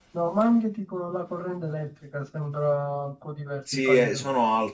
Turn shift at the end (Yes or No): Yes